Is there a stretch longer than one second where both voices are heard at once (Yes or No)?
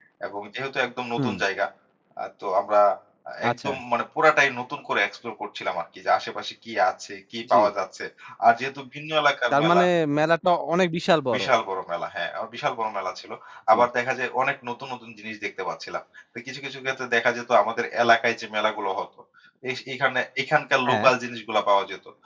No